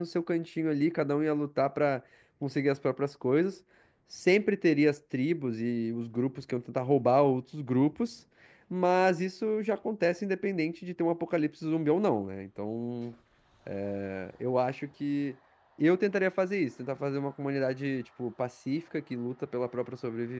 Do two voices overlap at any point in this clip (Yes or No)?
No